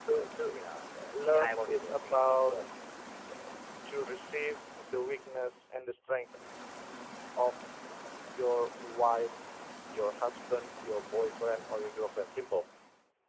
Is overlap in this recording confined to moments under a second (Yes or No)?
No